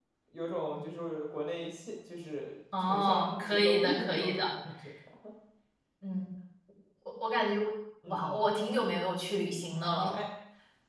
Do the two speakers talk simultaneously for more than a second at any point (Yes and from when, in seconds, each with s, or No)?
Yes, from 2.9 s